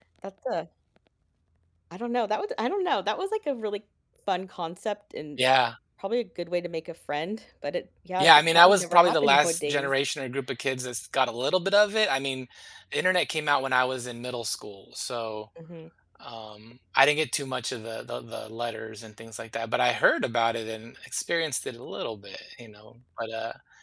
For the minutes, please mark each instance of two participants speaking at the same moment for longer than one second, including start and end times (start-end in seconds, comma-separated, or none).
8.2-9.9